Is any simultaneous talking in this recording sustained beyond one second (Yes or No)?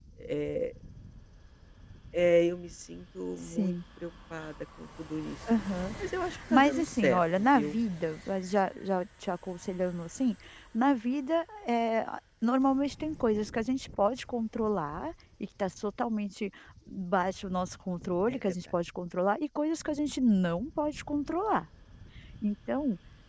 Yes